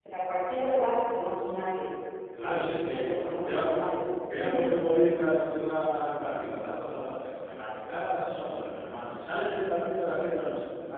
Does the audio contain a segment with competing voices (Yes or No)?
Yes